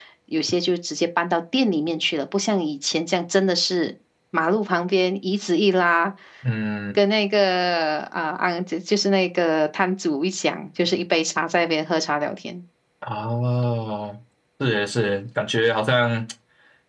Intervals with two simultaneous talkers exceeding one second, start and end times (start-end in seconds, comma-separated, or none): none